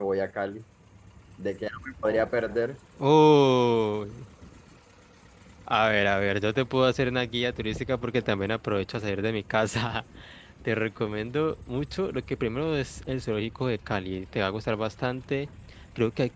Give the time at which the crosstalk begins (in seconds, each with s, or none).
none